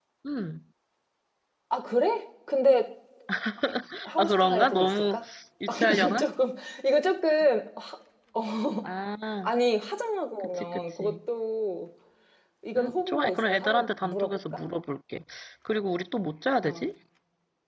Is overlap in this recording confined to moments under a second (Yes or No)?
No